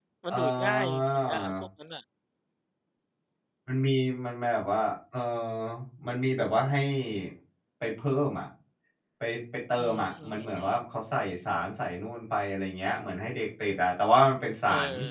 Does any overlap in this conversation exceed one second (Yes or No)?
Yes